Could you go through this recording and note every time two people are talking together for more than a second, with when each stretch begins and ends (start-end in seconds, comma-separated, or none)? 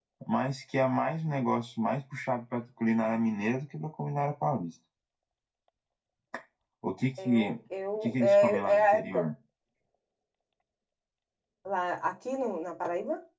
8.0-9.2